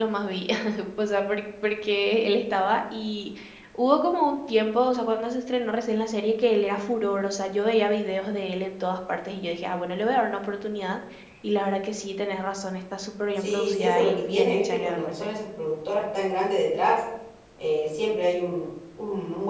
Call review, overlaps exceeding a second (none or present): present